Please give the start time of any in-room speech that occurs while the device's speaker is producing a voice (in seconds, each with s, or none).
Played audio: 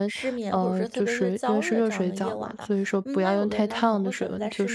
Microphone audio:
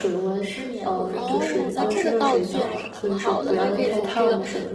1.1 s